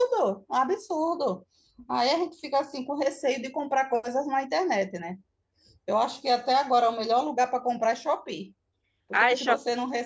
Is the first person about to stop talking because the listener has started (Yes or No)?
No